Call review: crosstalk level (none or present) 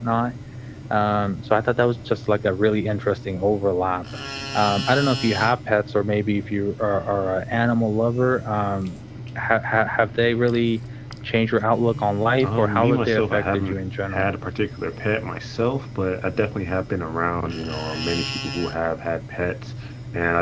present